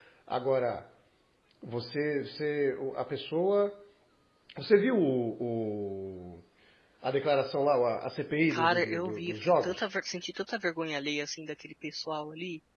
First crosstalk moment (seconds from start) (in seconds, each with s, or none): 8.5 s